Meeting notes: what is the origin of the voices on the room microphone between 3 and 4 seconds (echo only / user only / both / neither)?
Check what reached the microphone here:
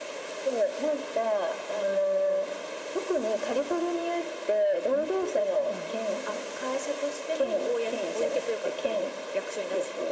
echo only